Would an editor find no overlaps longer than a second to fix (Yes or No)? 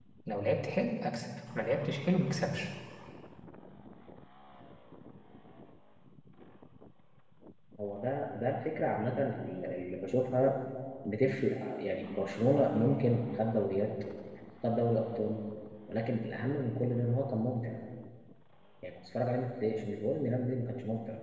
Yes